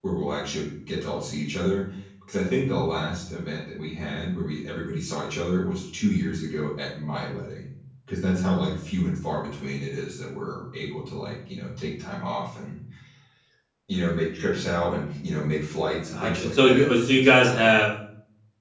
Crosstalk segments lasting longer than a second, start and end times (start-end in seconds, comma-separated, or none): 16.1-17.7